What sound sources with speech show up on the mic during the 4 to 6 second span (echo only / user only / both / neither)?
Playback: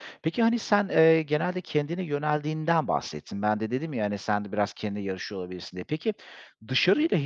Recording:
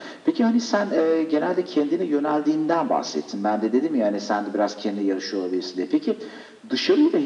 echo only